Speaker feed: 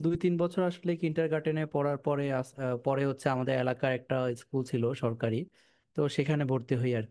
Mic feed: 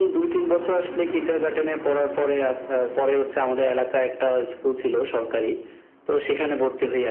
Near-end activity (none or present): none